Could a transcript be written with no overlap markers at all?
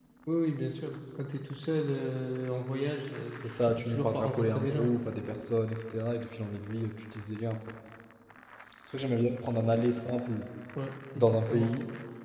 No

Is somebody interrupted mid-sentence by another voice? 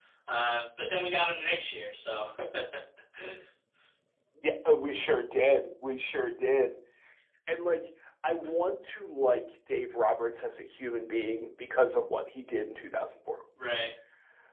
No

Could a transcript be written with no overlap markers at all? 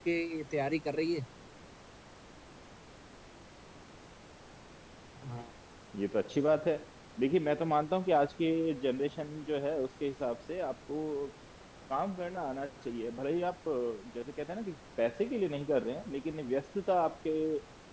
Yes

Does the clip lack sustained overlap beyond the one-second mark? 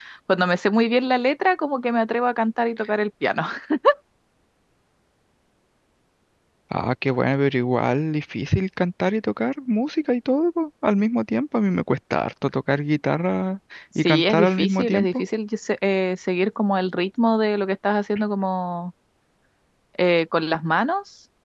No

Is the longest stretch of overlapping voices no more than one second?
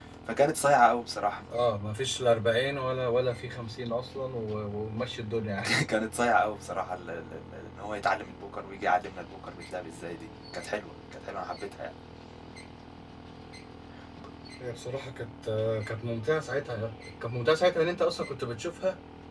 Yes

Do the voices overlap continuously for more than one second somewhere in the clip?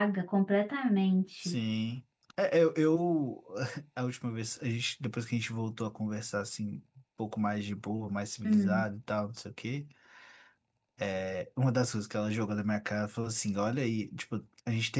No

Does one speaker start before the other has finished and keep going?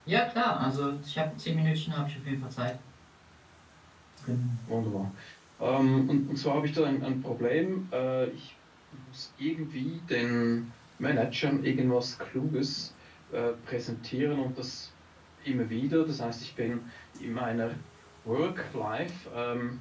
No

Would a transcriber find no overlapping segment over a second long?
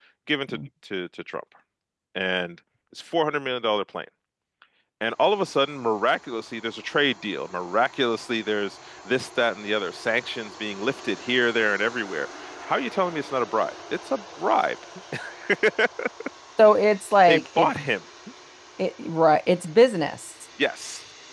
Yes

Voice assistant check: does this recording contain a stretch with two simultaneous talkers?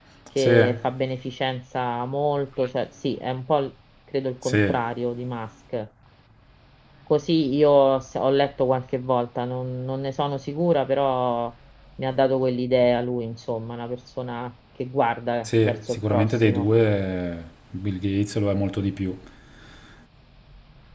Yes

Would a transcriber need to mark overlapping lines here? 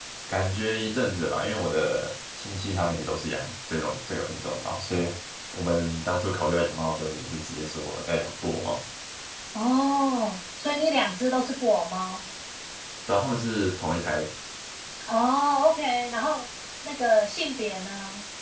No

